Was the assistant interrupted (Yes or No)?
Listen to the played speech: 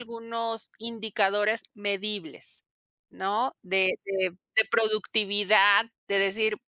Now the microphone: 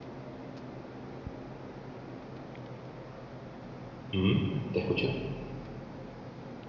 Yes